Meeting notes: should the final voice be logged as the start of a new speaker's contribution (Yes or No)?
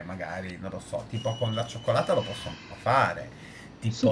No